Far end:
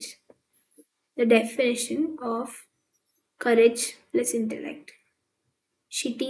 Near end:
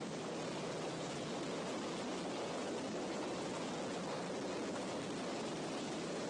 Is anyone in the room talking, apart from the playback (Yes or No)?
No